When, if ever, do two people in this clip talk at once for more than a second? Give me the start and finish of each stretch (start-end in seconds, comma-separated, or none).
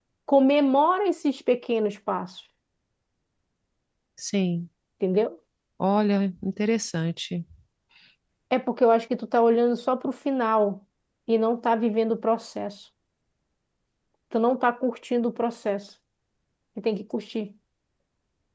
none